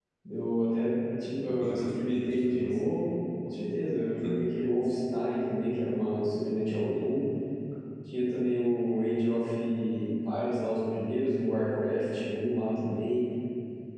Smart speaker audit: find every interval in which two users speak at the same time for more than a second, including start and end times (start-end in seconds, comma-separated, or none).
1.5-2.8